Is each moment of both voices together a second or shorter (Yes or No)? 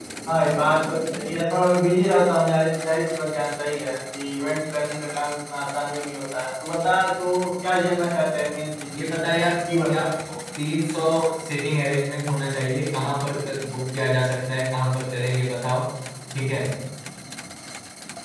Yes